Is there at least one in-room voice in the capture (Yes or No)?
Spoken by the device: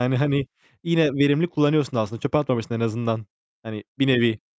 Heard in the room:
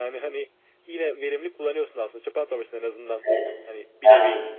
Yes